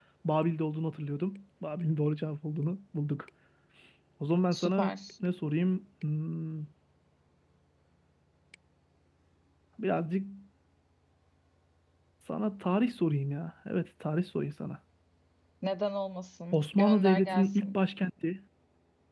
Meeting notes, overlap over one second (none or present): present